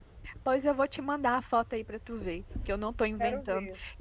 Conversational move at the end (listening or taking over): listening